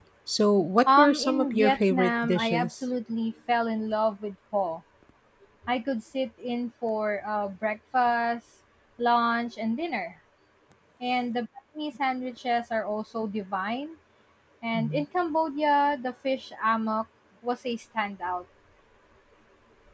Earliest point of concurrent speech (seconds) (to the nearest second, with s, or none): 1 s